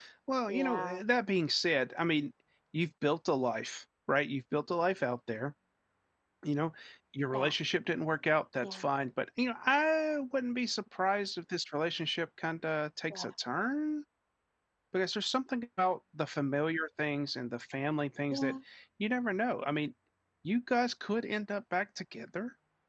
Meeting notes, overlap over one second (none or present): none